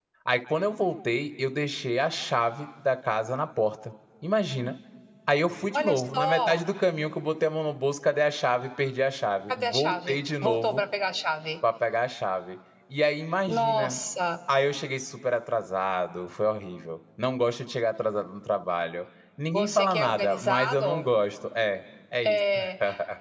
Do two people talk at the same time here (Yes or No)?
Yes